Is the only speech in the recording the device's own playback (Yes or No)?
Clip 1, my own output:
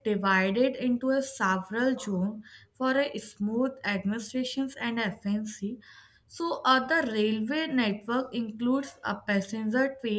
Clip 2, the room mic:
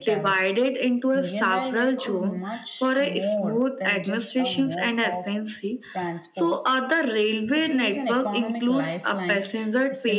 No